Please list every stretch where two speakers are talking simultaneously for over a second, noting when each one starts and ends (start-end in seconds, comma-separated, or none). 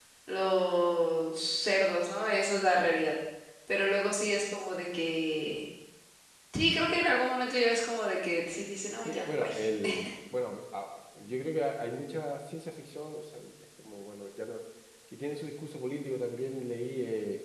none